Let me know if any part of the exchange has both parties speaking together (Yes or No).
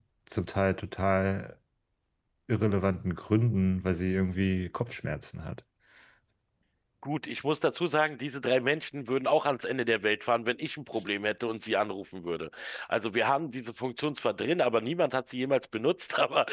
No